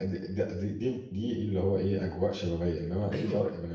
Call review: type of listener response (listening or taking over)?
listening